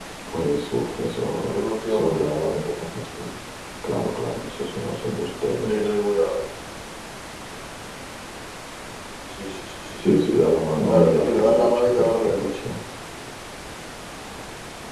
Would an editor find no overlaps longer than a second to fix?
No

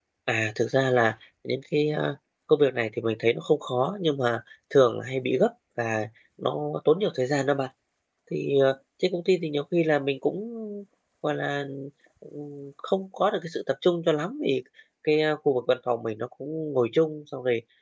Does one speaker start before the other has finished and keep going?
No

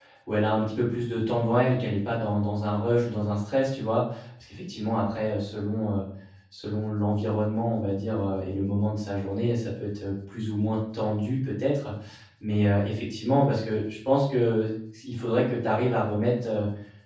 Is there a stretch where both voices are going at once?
No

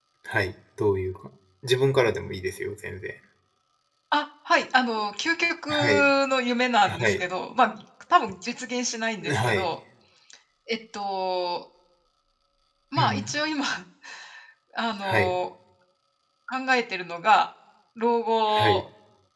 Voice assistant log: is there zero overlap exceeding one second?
Yes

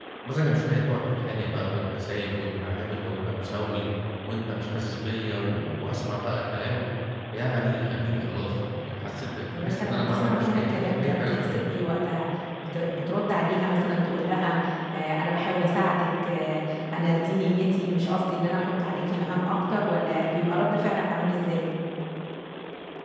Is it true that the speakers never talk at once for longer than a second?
No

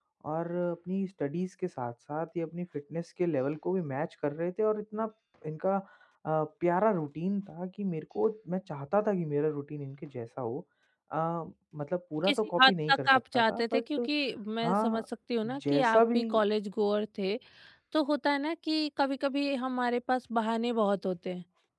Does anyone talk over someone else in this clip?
Yes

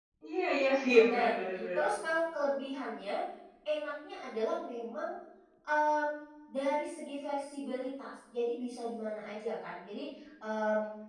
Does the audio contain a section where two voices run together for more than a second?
No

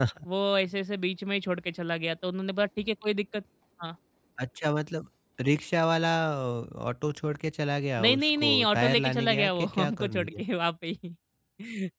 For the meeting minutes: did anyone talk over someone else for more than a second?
Yes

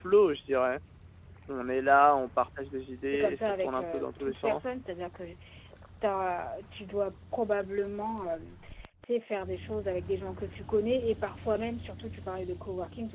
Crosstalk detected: Yes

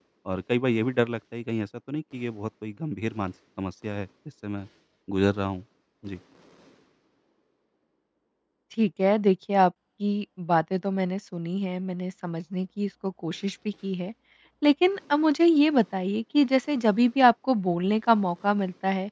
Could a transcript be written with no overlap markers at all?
Yes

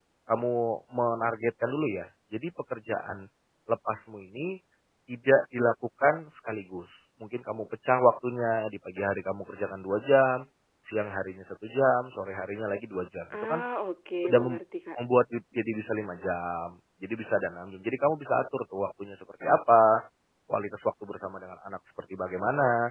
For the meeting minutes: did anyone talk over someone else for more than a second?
No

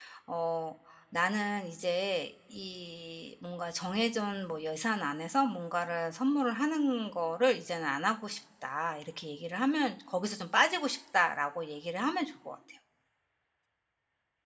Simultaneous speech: No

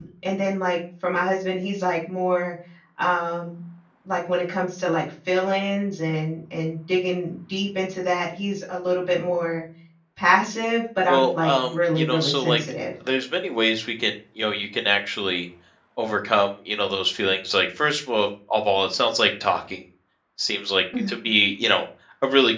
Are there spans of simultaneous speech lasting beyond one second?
Yes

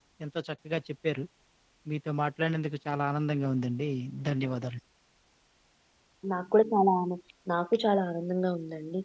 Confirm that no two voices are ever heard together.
Yes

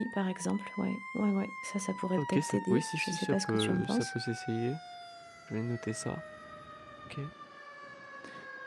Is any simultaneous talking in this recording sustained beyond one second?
Yes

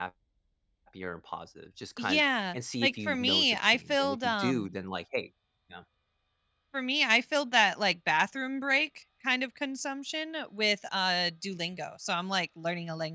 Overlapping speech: Yes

